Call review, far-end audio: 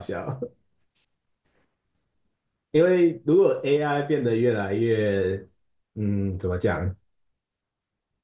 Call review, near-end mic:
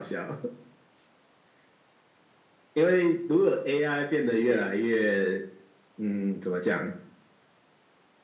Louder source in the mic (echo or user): echo